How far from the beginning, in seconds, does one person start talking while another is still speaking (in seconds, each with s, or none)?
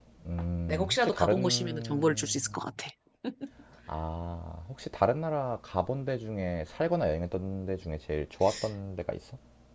0.7 s